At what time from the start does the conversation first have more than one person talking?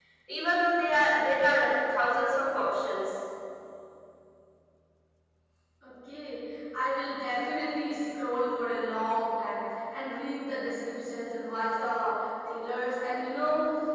none

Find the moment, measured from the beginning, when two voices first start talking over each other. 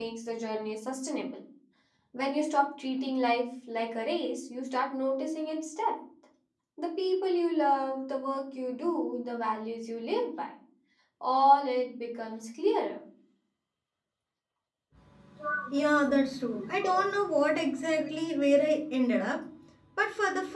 none

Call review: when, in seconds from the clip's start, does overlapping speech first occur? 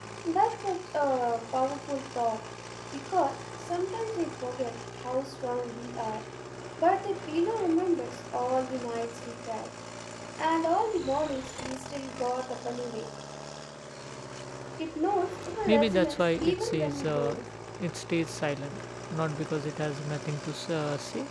16 s

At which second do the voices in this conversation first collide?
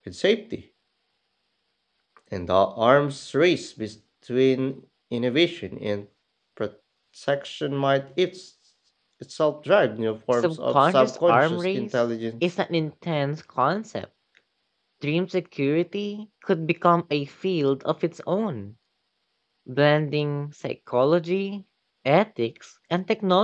10 s

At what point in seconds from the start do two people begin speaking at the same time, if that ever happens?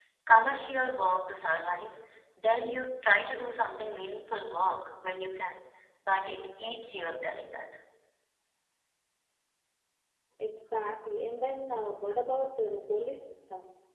none

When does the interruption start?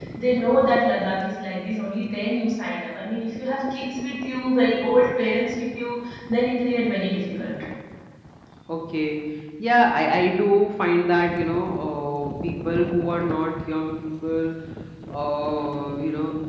none

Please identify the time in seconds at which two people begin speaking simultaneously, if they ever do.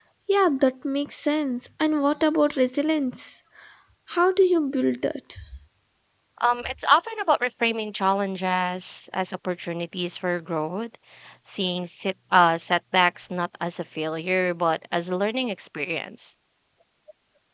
none

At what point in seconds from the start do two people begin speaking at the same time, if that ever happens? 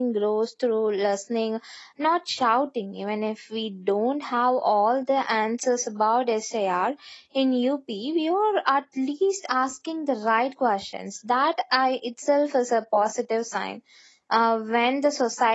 none

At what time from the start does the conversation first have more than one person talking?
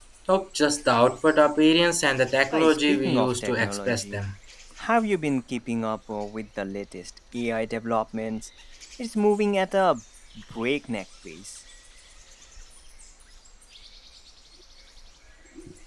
3 s

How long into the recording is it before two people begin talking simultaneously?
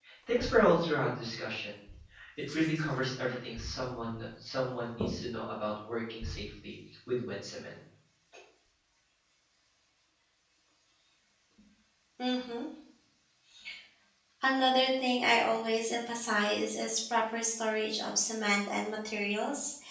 none

